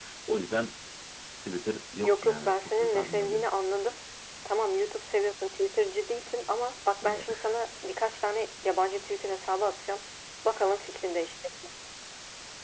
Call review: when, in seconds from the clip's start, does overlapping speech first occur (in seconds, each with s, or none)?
2.0 s